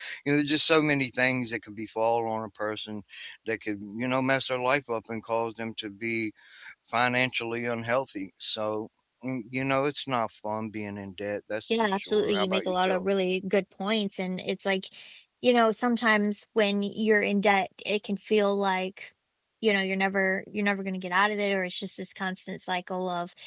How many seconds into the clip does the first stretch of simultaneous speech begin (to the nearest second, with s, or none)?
12 s